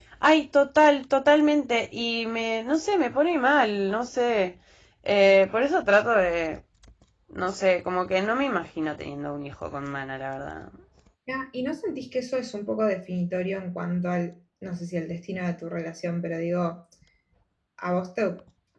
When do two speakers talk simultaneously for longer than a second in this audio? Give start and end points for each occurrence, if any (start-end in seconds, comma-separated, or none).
none